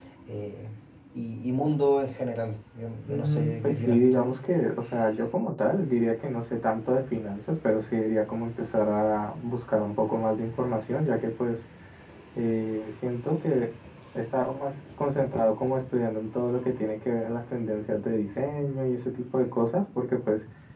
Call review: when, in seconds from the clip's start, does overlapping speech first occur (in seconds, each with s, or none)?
3.1 s